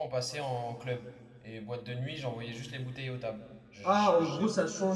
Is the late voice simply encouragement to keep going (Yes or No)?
No